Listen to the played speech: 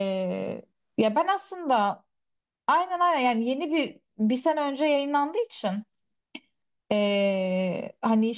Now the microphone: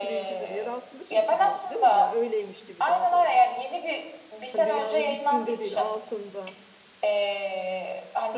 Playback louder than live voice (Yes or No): Yes